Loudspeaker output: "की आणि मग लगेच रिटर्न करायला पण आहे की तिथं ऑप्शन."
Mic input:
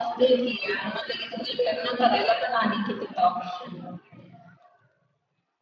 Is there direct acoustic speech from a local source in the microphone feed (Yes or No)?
No